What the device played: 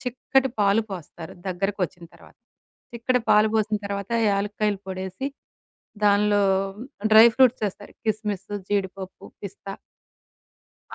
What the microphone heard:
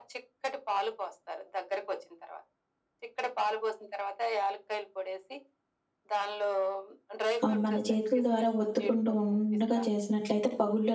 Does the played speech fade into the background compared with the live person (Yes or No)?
Yes